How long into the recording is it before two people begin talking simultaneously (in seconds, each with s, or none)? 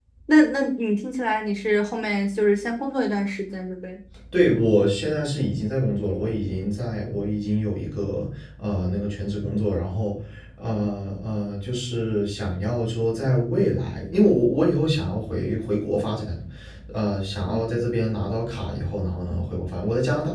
none